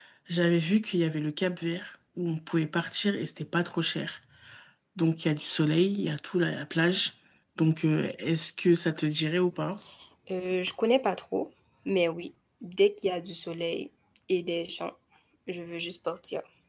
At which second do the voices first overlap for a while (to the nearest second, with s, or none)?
none